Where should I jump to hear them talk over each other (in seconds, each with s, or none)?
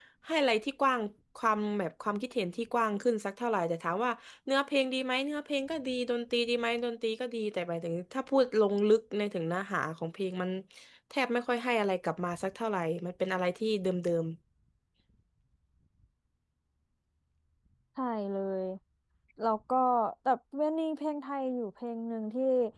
none